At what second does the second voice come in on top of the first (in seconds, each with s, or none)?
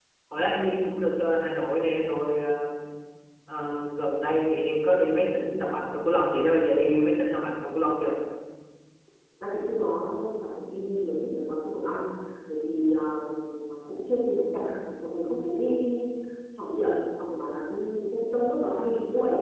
none